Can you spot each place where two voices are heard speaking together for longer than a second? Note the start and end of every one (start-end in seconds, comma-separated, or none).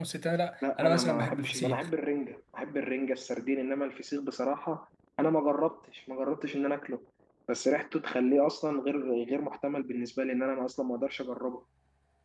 0.6-1.9